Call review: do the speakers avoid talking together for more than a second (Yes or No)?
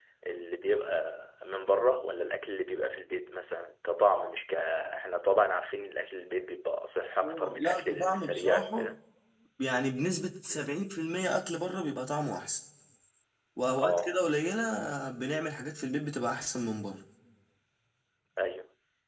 No